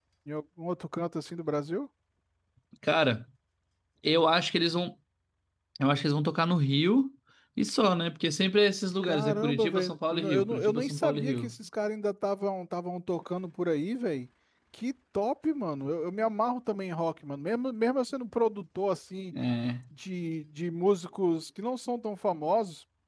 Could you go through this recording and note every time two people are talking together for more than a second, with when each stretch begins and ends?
9.0-11.5

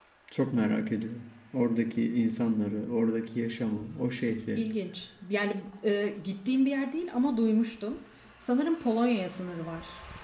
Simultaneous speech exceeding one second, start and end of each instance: none

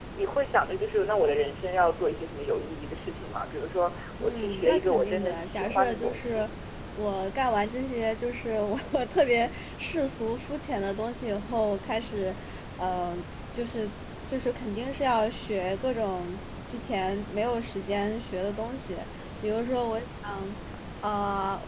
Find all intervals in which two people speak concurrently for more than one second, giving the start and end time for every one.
4.2-6.4

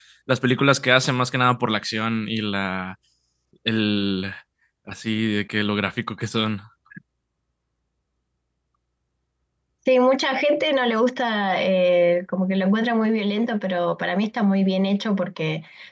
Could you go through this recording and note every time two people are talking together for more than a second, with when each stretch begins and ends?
none

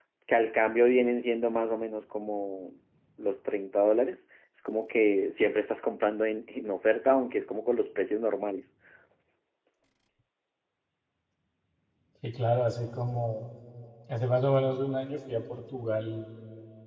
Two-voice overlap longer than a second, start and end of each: none

